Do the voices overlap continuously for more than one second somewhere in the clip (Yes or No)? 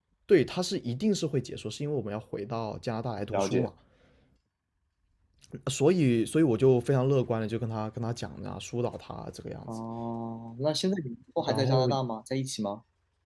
No